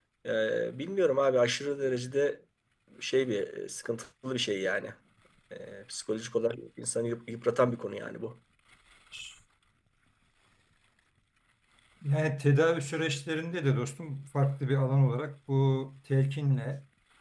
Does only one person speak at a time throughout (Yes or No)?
Yes